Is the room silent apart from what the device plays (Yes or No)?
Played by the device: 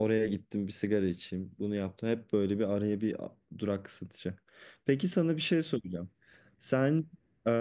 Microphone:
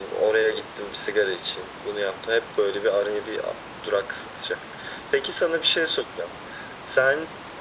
Yes